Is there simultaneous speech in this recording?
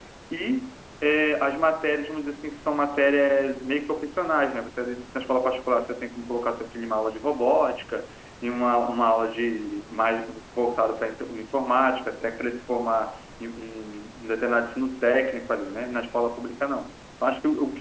No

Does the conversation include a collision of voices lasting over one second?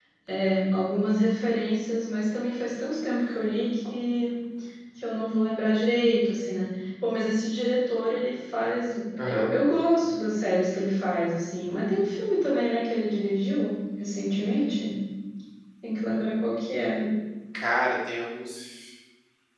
No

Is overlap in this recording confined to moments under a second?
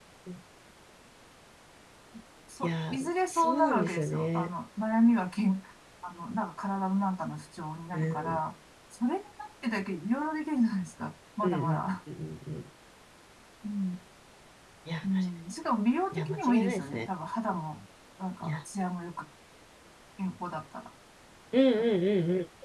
No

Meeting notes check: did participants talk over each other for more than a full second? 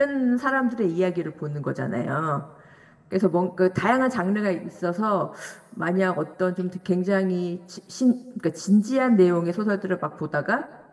No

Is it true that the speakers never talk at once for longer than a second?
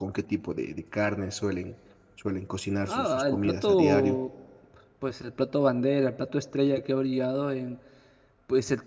No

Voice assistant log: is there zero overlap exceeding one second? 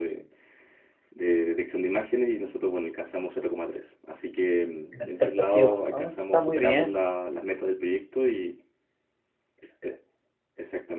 No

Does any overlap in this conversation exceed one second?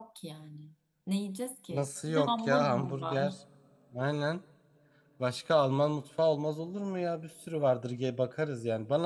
Yes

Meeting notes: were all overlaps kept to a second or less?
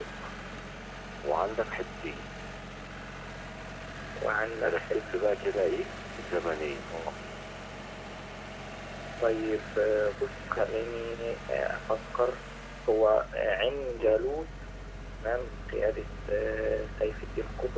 Yes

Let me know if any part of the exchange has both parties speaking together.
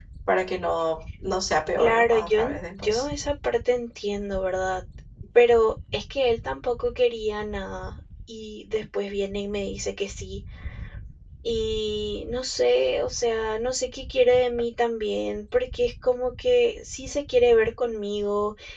Yes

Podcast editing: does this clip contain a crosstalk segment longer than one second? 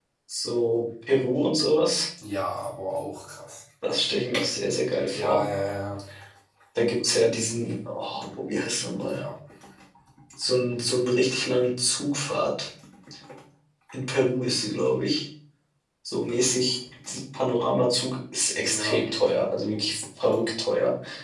No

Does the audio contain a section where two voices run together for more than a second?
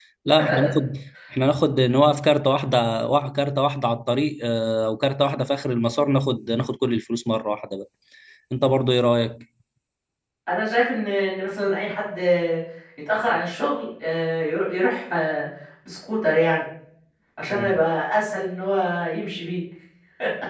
No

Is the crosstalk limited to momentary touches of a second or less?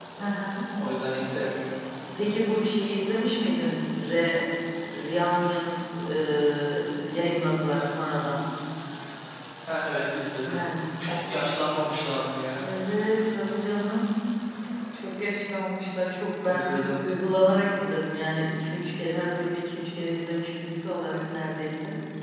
Yes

